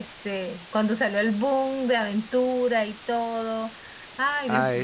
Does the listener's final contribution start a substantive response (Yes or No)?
Yes